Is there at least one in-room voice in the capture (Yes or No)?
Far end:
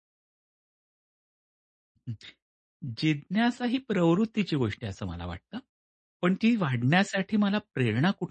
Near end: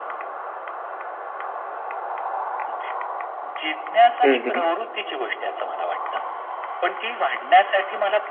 Yes